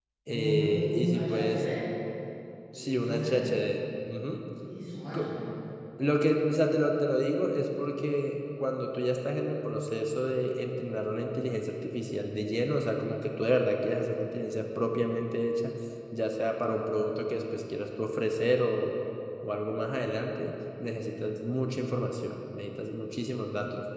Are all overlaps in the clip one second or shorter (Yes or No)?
No